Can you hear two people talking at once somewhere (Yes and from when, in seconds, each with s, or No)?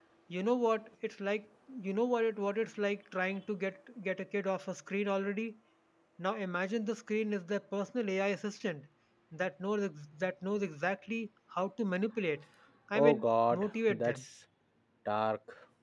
Yes, from 12.9 s